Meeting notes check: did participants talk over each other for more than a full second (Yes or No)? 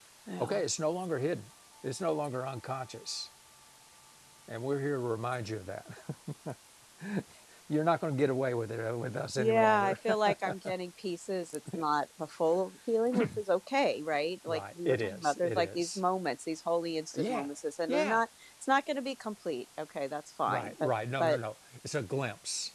Yes